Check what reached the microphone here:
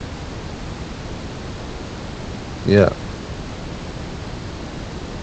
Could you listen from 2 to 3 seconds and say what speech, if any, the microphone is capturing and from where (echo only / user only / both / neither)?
user only